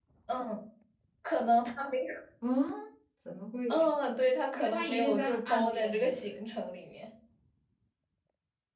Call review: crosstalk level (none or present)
present